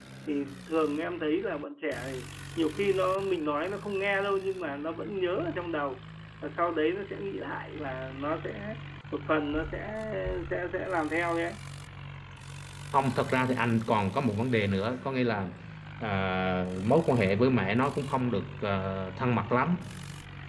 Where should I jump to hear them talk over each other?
none

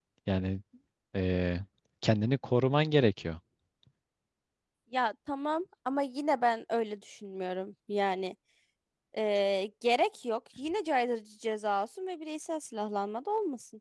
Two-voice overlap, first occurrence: none

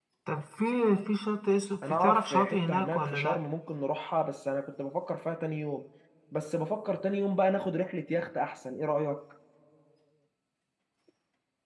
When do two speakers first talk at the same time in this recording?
2 s

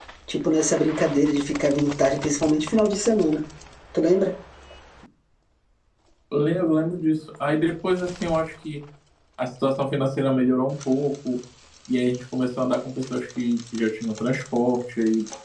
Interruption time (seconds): none

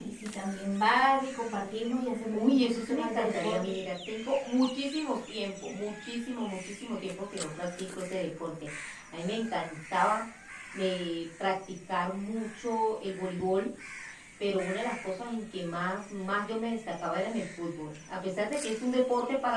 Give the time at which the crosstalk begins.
2 s

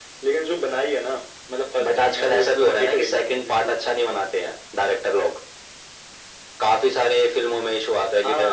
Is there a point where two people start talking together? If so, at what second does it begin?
2 s

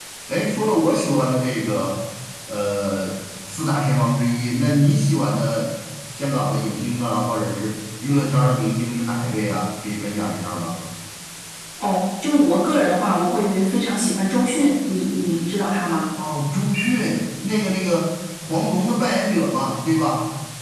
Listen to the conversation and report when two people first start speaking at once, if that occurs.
none

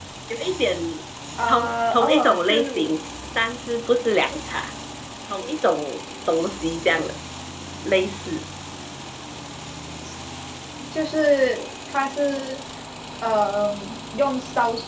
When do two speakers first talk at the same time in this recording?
1 s

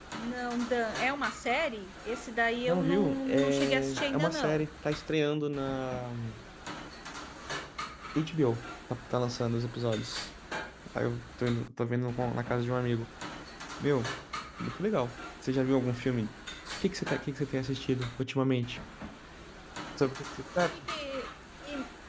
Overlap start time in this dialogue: 3 s

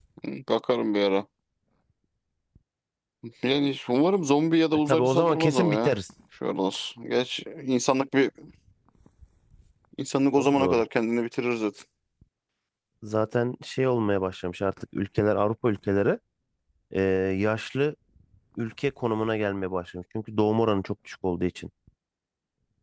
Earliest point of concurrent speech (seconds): 5 s

